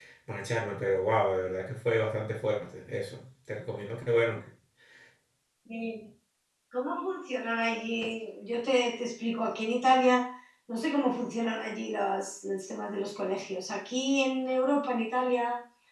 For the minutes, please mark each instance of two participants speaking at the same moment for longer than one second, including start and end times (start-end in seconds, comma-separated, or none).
none